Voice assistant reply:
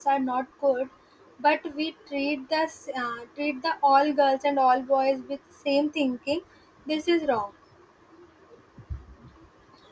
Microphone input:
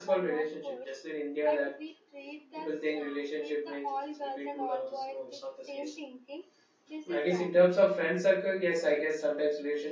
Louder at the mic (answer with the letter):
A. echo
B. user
B